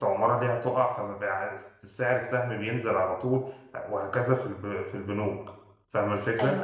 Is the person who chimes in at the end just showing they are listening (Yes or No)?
No